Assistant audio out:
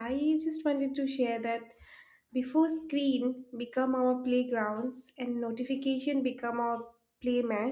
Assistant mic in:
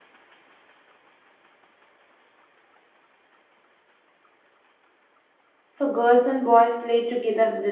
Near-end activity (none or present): present